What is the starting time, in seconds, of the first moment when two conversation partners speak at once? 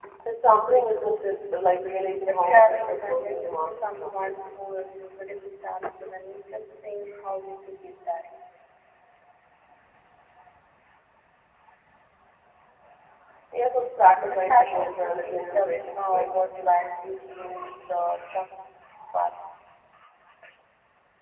2 s

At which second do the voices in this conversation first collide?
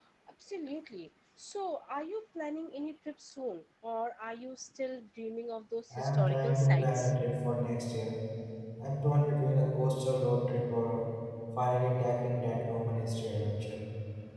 6 s

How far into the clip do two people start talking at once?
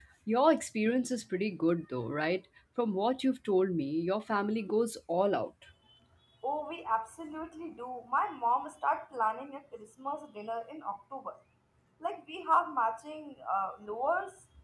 none

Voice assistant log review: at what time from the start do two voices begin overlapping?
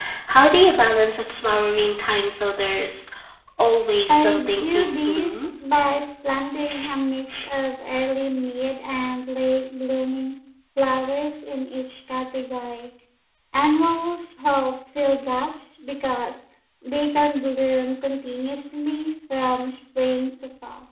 4 s

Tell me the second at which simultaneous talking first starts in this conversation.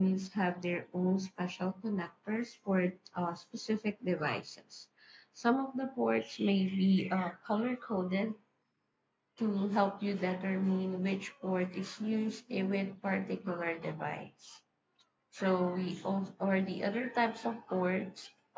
none

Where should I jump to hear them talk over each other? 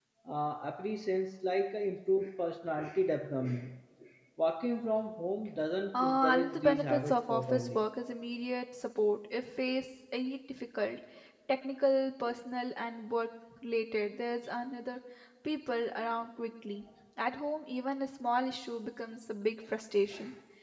6 s

